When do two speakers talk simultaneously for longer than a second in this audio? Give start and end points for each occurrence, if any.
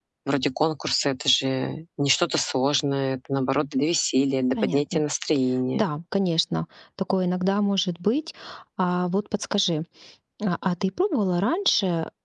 none

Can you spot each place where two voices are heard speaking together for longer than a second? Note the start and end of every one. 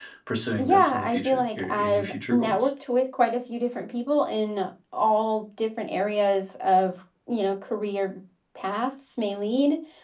0.6-2.7

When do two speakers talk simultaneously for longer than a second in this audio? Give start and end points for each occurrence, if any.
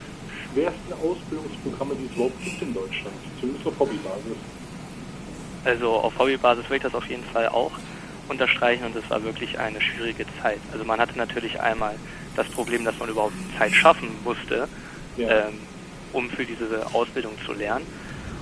none

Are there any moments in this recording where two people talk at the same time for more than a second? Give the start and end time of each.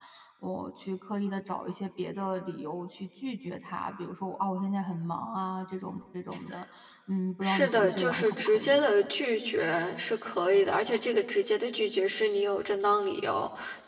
7.4-8.9

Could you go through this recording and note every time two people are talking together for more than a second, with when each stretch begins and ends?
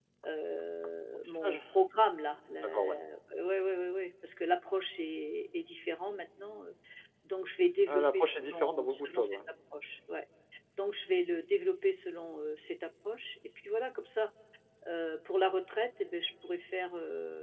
7.9-9.4

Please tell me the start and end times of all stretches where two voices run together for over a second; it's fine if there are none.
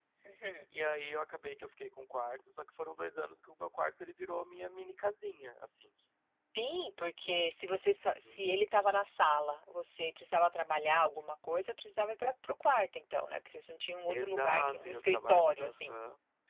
14.1-16.0

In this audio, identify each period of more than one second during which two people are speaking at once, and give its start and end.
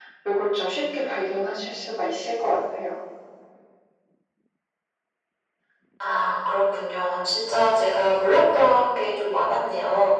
none

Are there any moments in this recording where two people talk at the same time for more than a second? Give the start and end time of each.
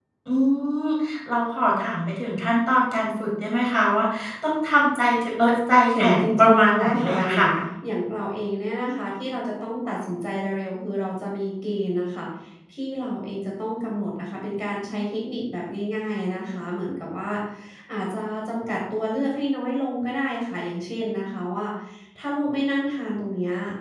6.0-7.4

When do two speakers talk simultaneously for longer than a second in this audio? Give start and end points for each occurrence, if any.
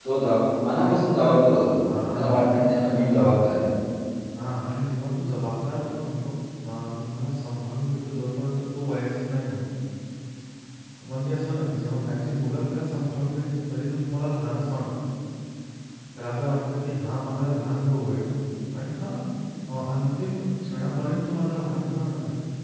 2.1-3.4

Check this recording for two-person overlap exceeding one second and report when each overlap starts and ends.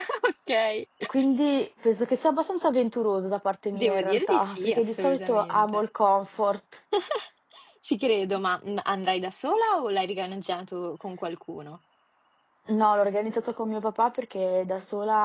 3.7-5.8

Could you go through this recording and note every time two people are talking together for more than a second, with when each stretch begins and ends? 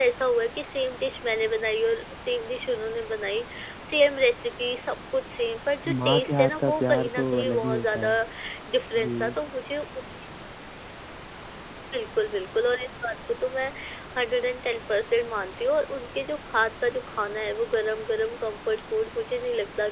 6.0-8.1

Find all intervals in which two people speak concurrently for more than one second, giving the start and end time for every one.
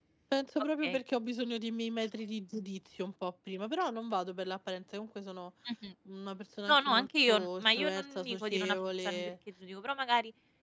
6.7-9.3

